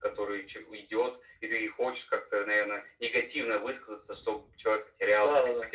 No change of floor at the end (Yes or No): No